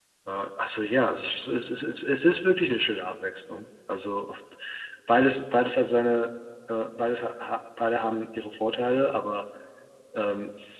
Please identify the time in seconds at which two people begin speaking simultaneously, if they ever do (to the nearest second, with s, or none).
none